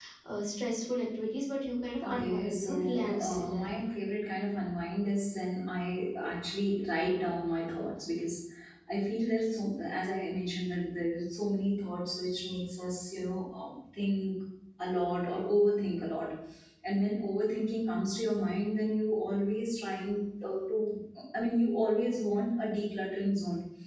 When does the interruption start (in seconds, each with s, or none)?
2.0 s